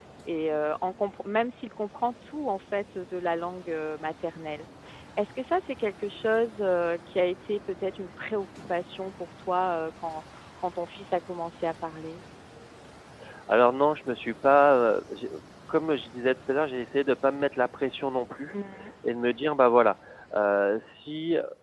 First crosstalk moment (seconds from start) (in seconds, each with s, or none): none